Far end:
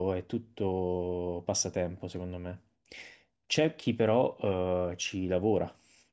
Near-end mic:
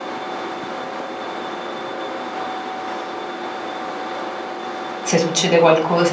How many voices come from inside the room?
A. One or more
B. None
A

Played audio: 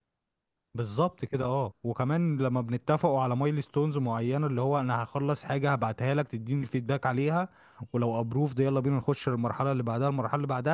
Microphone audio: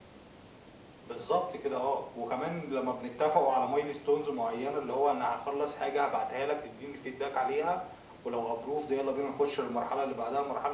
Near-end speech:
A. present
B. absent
B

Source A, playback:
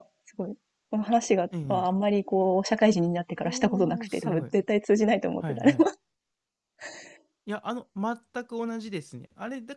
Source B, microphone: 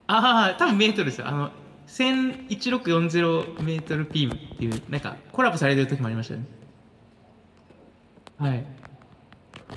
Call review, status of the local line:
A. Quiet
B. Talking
B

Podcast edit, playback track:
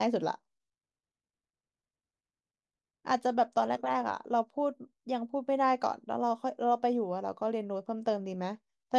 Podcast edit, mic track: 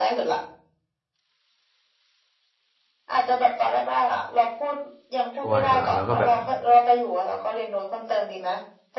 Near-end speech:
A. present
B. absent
A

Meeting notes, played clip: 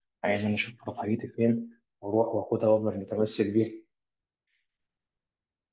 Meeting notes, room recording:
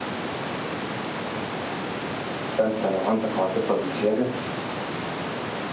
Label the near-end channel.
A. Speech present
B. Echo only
A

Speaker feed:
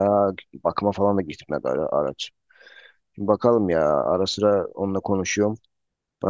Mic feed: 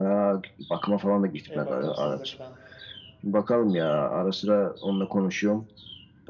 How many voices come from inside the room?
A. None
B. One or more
B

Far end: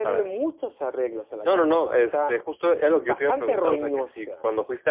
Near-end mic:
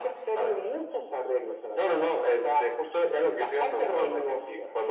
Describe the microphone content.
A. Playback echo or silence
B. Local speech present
A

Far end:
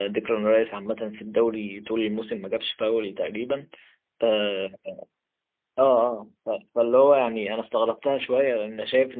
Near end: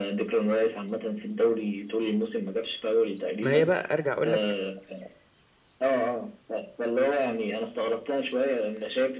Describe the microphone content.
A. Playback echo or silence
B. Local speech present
B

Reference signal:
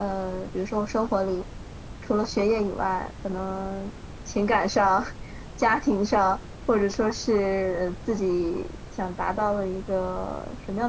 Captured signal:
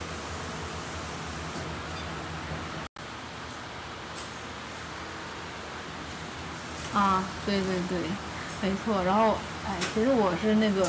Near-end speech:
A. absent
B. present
B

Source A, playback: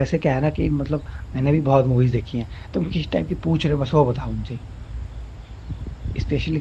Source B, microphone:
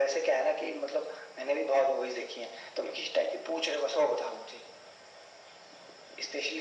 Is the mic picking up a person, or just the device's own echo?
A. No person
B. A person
A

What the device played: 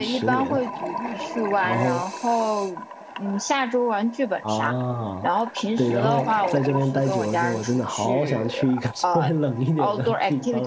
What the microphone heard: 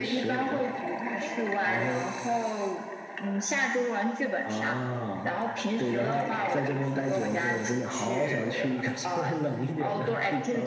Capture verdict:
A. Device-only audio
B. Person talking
A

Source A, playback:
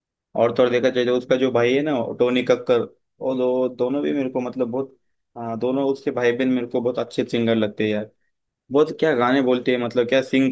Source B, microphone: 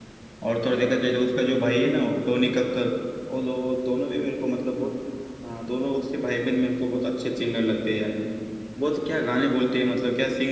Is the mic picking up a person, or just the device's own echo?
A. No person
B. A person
A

